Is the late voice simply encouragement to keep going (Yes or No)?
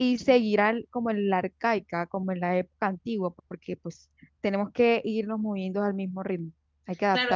No